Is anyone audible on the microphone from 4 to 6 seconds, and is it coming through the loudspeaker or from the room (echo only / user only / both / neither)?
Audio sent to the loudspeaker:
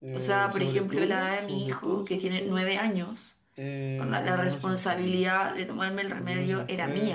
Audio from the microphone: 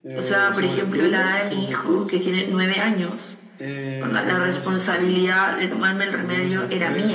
echo only